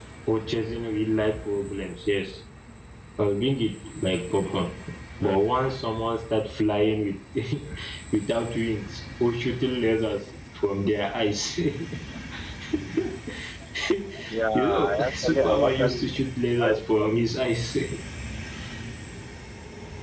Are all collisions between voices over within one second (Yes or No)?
No